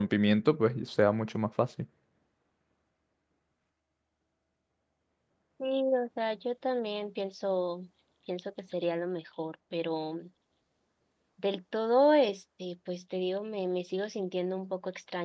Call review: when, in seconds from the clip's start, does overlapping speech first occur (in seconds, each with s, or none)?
none